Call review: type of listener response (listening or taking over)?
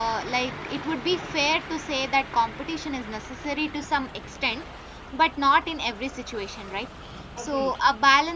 listening